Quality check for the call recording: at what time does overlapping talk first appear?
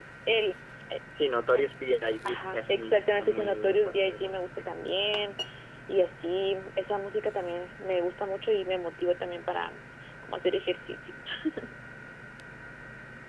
2.2 s

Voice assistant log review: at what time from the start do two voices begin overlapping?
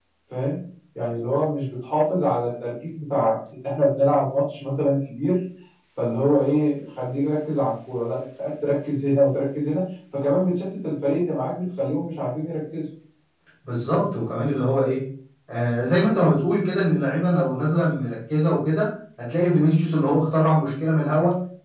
none

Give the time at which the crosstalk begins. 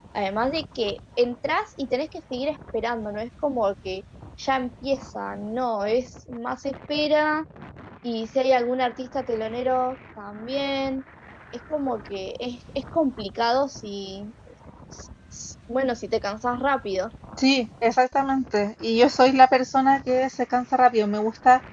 none

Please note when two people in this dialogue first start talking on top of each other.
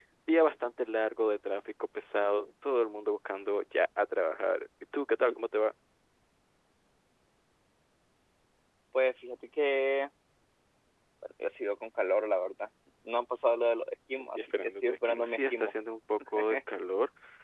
14.1 s

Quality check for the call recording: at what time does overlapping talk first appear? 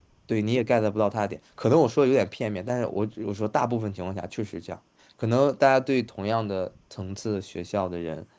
none

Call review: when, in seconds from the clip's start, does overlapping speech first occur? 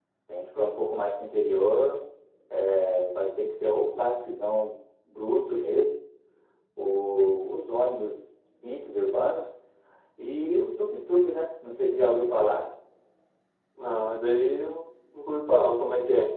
none

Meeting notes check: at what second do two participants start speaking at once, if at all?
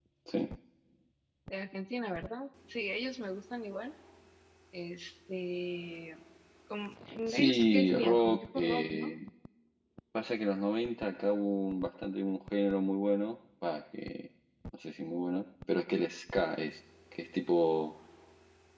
7.3 s

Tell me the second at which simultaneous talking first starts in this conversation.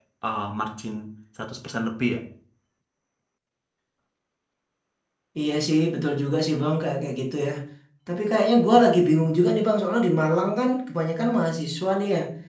none

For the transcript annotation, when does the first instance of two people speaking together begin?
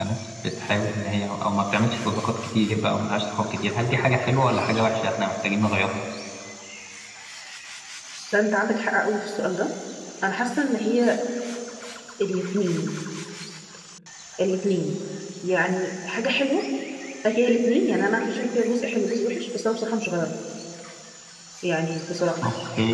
none

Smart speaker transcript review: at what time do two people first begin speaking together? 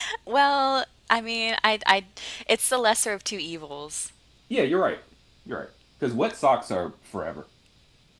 none

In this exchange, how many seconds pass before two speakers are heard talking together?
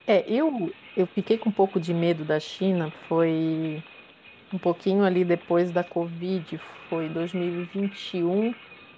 none

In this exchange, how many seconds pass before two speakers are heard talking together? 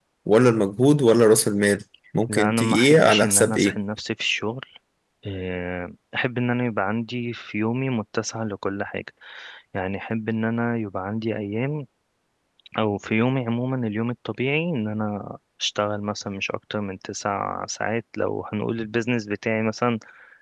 2.3 s

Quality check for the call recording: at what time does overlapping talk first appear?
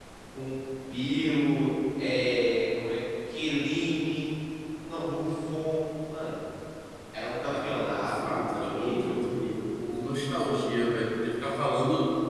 7.4 s

